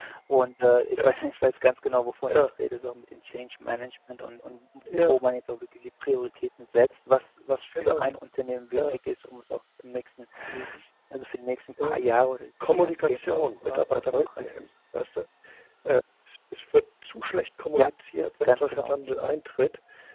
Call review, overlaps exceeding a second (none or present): present